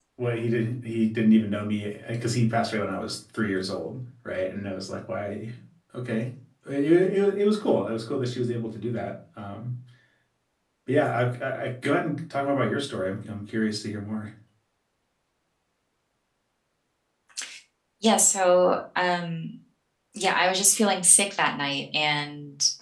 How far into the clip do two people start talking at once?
none

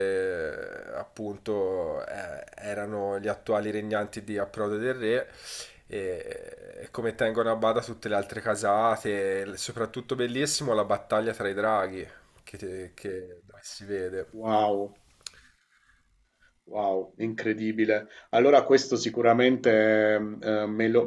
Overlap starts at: none

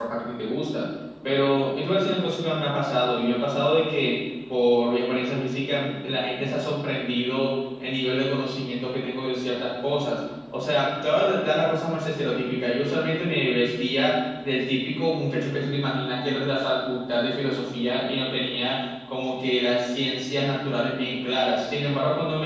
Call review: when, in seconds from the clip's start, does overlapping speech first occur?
none

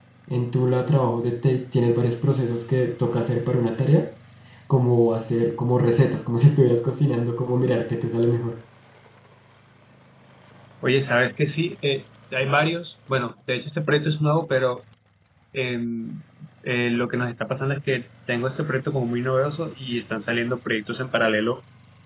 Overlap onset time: none

